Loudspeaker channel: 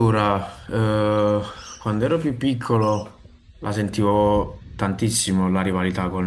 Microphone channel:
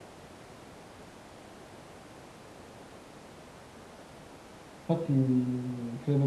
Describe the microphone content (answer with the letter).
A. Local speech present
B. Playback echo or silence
A